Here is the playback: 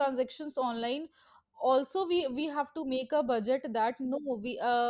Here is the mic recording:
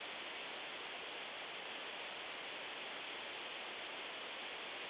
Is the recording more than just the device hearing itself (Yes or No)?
No